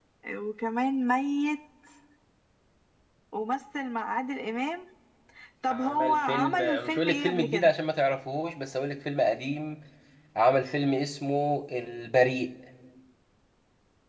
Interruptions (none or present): present